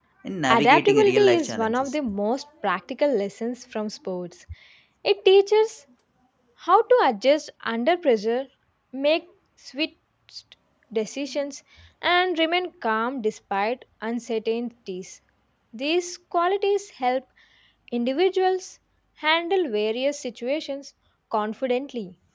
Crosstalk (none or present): present